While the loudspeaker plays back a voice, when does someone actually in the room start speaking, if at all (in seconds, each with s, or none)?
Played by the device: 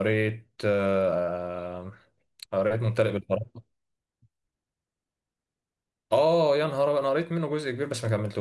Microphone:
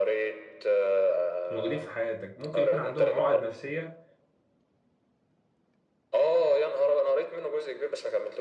1.4 s